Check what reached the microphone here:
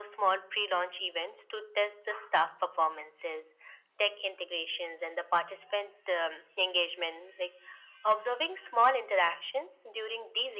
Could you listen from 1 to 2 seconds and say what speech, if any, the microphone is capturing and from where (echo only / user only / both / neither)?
echo only